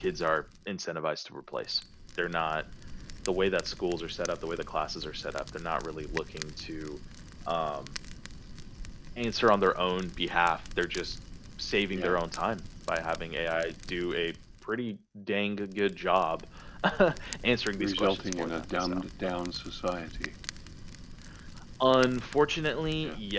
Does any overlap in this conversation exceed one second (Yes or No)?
Yes